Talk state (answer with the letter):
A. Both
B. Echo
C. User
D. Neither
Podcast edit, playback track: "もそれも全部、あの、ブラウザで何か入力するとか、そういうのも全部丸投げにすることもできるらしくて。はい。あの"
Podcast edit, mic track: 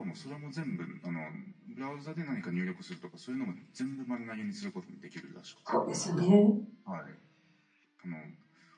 A